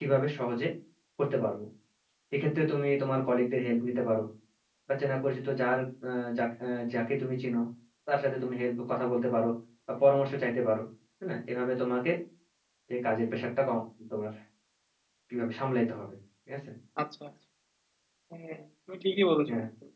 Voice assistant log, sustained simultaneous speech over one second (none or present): none